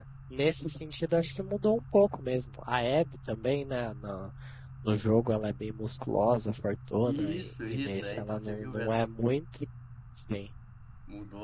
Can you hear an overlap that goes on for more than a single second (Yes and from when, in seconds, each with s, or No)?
Yes, from 7.0 s